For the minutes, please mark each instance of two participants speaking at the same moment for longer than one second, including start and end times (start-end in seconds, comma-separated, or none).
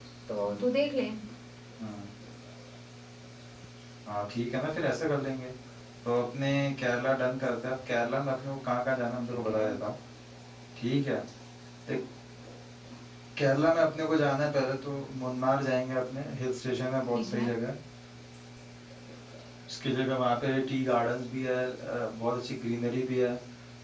none